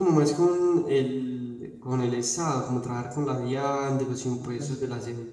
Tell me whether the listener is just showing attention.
Yes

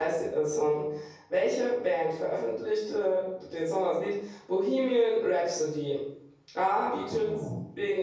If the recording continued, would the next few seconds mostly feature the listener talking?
No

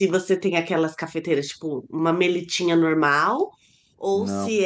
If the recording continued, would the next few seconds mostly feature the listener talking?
No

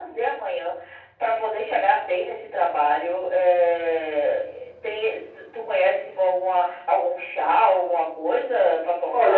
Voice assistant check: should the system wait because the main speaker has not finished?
No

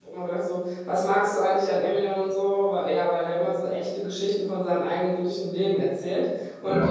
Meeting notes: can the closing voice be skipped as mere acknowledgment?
Yes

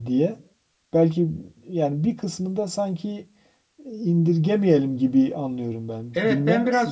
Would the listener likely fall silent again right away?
No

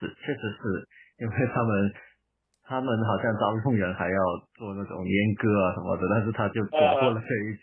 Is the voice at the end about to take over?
No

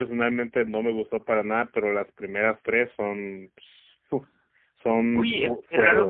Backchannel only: No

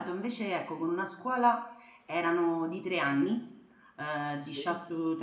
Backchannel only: Yes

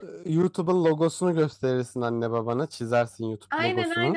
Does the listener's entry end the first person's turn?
Yes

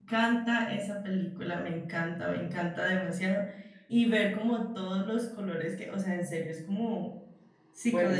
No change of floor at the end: No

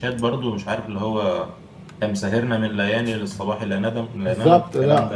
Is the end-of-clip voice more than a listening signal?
Yes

